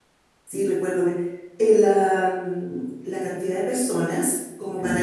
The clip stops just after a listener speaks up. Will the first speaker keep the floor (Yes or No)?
Yes